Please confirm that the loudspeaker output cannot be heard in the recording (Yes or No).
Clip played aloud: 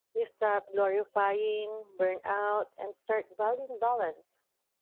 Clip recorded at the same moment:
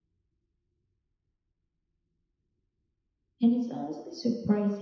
Yes